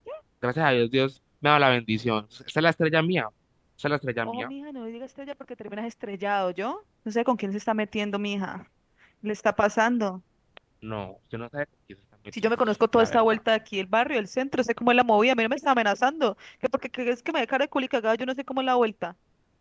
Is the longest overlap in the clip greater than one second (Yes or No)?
No